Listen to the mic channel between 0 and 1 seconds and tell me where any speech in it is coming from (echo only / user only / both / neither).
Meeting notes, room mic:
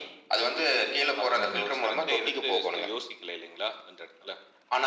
echo only